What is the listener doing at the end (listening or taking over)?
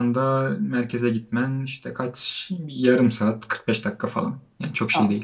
taking over